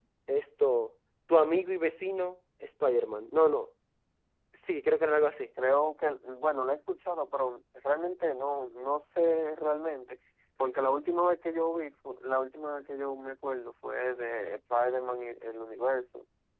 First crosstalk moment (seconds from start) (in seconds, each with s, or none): none